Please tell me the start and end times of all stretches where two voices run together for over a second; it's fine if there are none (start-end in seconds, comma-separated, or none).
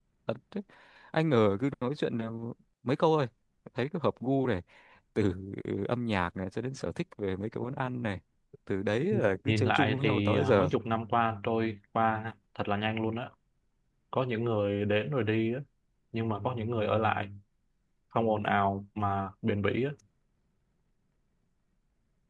9.5-10.7